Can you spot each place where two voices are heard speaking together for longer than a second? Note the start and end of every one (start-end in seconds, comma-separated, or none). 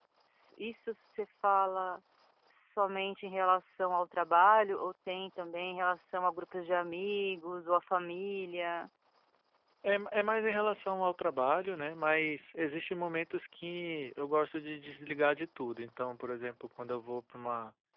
none